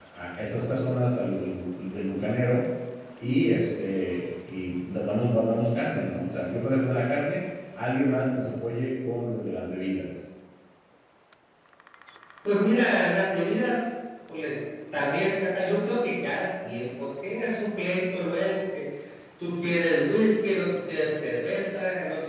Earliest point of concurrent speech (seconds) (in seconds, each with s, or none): none